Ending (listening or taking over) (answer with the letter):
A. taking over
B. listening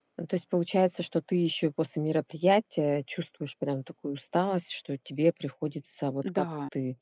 B